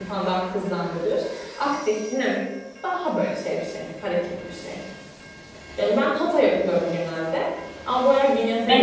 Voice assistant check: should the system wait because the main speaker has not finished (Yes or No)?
No